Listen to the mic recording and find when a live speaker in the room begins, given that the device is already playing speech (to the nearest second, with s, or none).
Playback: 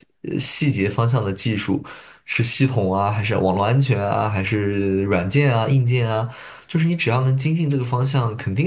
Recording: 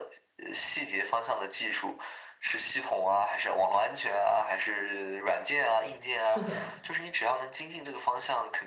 6 s